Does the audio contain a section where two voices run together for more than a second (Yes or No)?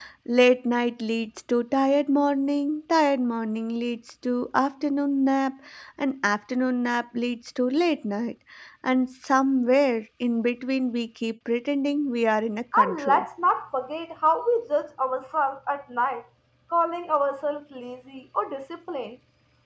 No